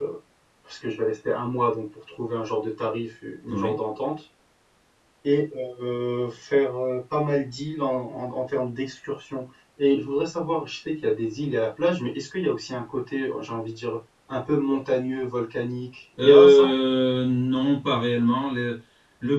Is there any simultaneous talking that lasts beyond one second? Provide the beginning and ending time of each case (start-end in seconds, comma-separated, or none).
none